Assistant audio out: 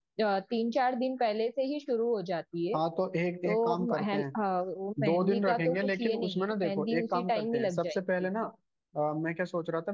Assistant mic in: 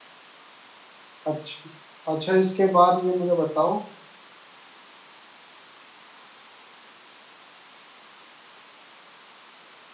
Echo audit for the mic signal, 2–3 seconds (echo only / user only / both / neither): user only